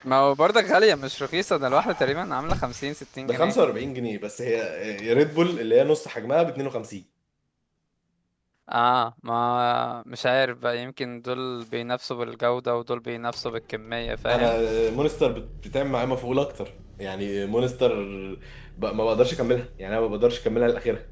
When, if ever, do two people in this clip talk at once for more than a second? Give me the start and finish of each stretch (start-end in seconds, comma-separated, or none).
none